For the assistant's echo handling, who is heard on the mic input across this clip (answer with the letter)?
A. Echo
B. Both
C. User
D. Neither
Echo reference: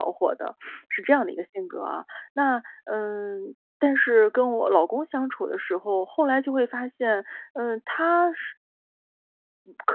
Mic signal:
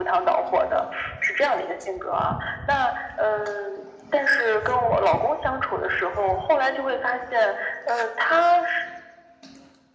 A